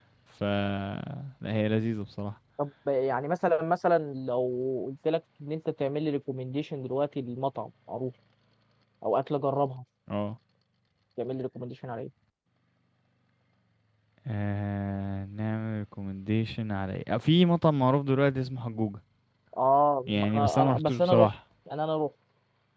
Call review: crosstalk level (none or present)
present